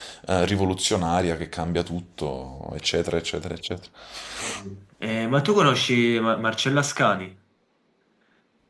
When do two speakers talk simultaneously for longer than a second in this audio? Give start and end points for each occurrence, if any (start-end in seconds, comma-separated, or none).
none